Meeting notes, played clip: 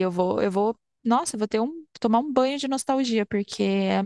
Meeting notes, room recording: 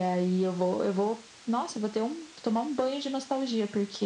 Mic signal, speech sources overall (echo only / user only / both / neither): echo only